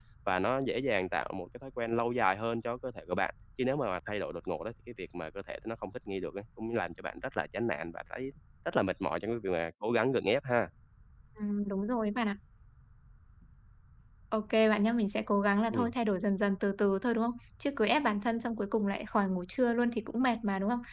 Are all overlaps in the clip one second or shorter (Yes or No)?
Yes